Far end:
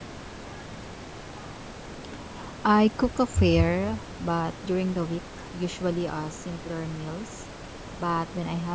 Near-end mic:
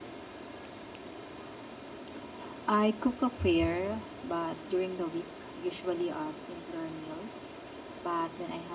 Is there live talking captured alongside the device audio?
No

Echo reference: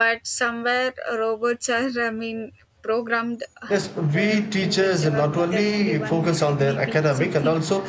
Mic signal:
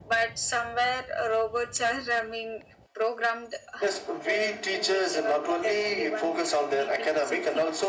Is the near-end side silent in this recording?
Yes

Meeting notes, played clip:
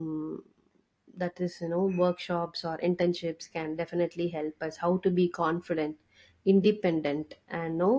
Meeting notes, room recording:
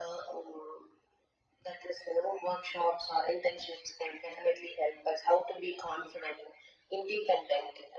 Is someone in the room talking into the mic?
No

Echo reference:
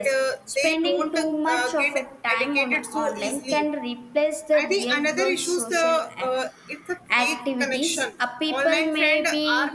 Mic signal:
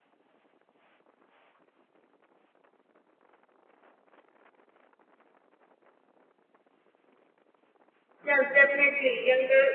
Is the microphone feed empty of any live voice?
No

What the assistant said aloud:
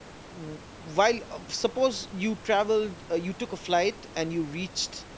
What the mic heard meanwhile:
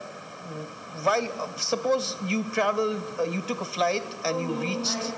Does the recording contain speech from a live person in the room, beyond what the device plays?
Yes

